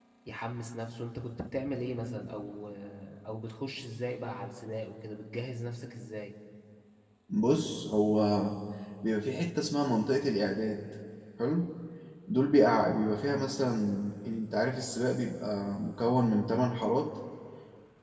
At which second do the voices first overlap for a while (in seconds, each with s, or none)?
none